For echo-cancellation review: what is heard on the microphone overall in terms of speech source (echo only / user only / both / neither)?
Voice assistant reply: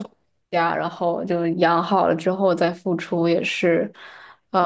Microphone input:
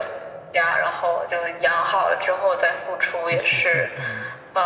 both